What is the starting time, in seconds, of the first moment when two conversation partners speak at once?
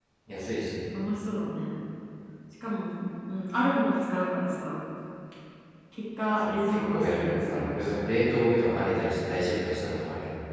6.4 s

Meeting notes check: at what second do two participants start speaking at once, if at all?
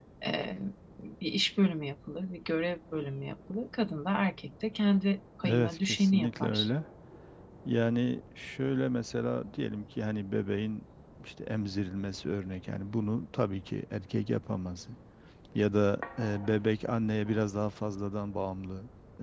5.4 s

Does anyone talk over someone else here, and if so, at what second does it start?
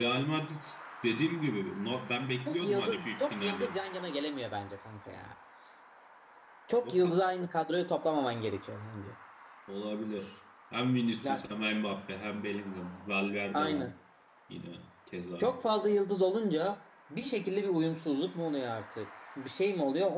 2.5 s

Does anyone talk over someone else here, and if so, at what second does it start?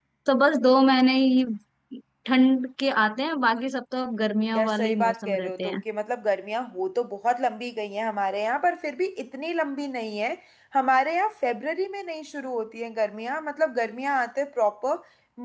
4.5 s

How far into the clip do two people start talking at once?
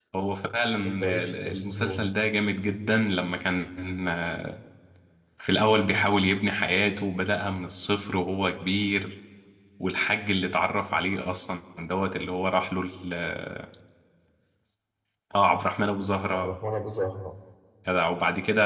0.7 s

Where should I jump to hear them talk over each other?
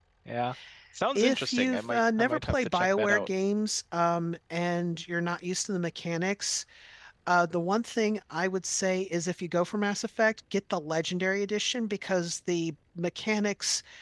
1.1 s

